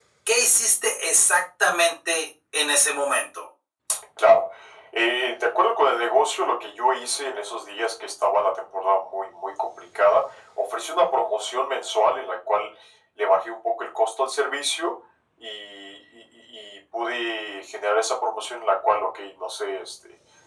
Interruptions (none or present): none